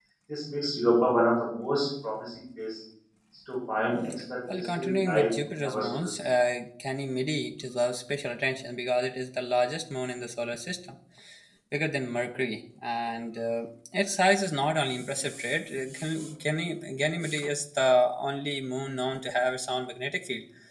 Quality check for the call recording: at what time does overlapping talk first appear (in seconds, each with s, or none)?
4.5 s